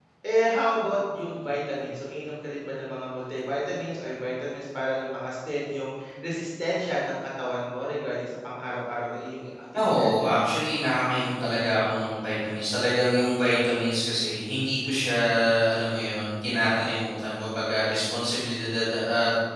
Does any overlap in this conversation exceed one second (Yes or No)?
No